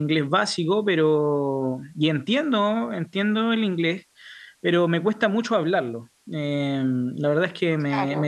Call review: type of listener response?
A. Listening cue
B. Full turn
A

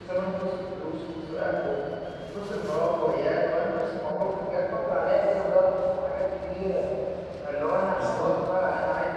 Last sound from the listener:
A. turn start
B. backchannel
B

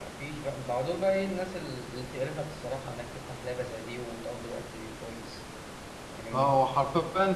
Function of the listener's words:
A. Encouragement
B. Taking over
B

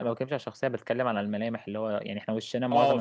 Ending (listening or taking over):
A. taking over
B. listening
A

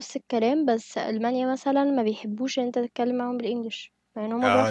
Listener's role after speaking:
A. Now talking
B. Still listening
A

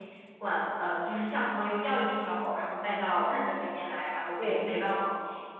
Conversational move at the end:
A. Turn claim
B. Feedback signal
B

